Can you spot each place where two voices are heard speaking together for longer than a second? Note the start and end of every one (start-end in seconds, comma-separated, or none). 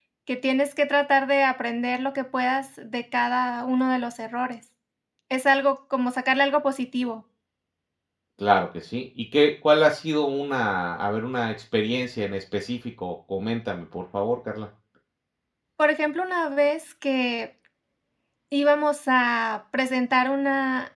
none